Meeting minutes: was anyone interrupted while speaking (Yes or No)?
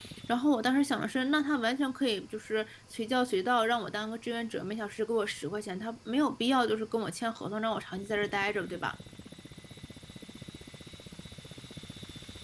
No